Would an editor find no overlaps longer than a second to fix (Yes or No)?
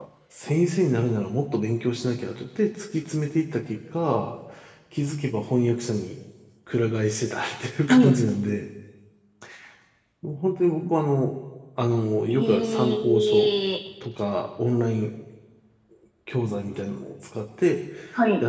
No